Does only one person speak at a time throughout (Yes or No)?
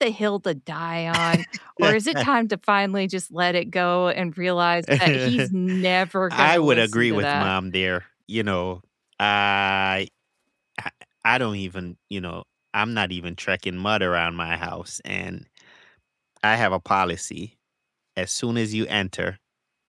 No